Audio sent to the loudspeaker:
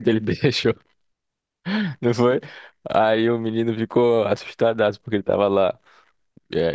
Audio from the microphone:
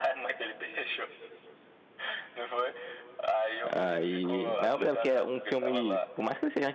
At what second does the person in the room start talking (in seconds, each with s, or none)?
3.7 s